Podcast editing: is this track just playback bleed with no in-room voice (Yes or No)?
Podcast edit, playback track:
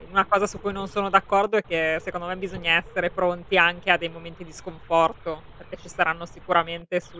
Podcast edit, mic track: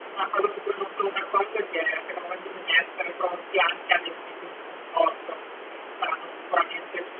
Yes